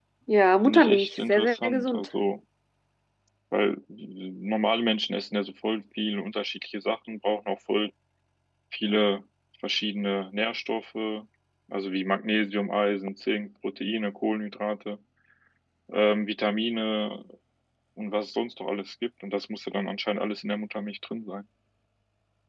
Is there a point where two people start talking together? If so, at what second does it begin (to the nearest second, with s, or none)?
1 s